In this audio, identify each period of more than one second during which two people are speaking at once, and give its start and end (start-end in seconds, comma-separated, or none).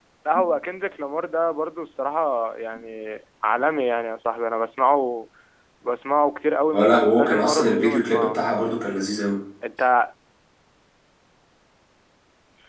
6.7-8.6